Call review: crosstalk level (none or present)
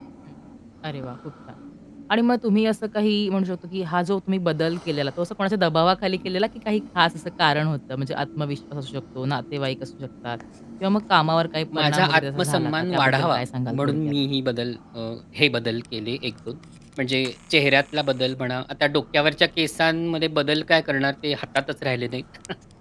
present